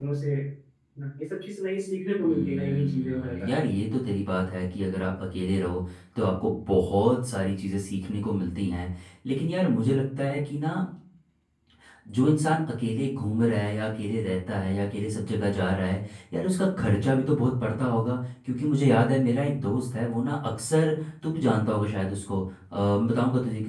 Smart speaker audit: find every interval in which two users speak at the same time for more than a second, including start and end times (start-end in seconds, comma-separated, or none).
2.2-3.7